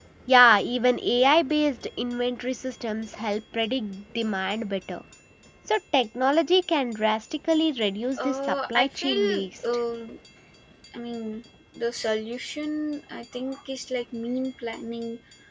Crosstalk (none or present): present